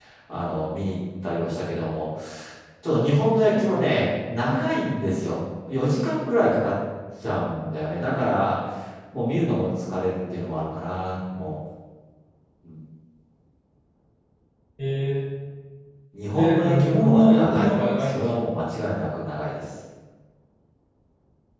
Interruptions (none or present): present